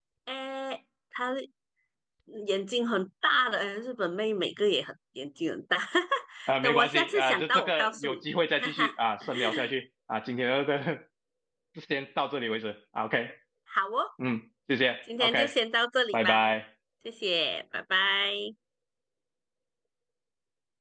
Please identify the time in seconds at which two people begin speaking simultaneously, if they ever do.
6.6 s

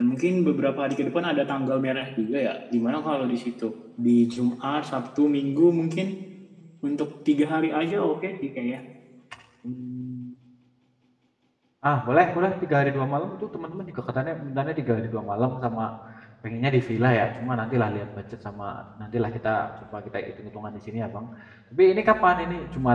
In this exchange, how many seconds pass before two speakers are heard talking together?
none

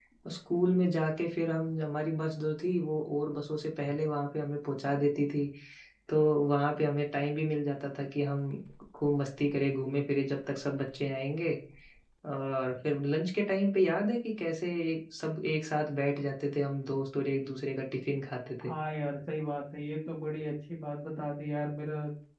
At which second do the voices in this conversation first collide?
none

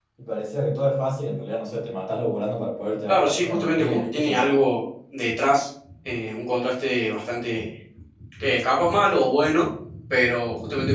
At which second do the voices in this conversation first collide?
3.1 s

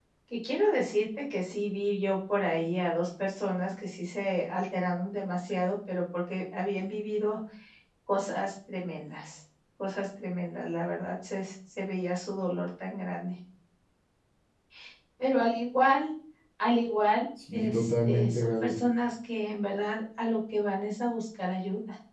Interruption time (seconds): 17.5 s

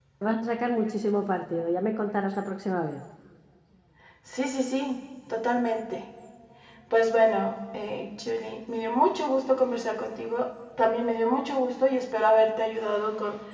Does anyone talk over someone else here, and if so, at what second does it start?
none

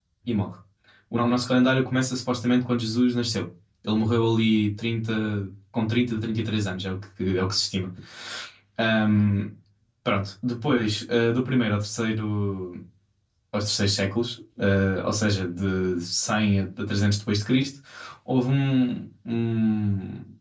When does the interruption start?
none

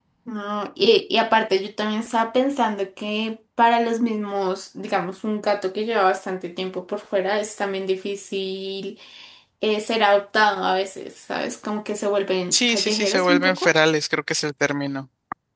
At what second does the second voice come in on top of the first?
12.5 s

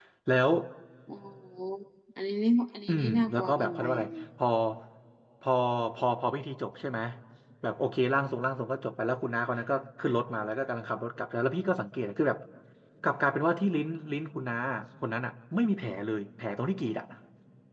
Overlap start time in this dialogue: 2.9 s

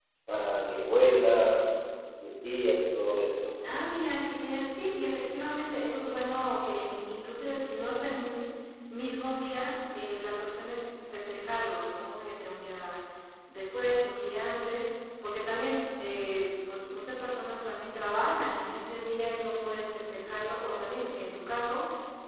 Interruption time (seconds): none

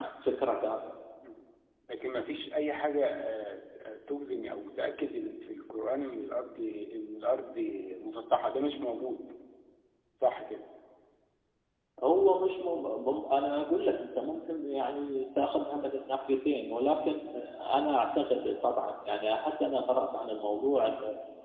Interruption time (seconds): none

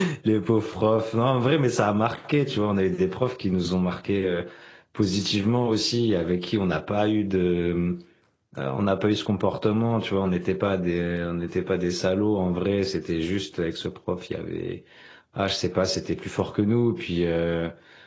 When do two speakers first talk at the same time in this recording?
none

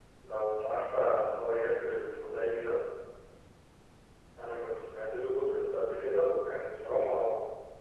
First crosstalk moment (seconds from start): none

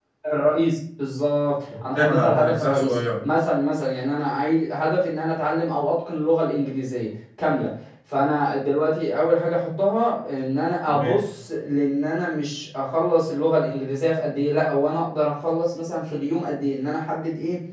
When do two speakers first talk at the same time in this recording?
2.0 s

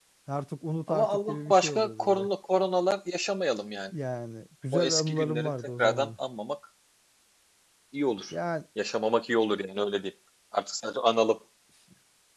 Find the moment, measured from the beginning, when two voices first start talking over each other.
0.9 s

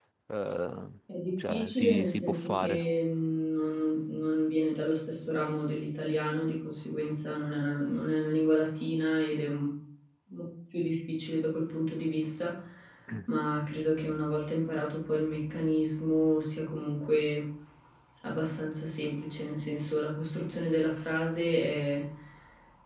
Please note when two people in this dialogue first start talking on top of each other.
1.5 s

